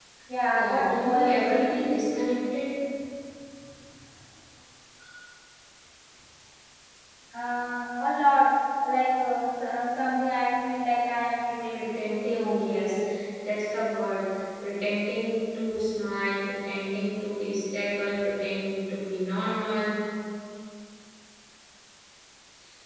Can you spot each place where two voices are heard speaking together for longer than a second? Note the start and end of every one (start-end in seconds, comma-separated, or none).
0.5-1.9, 11.7-13.0